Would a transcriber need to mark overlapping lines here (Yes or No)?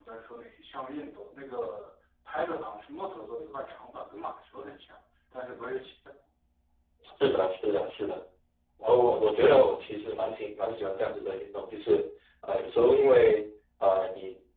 No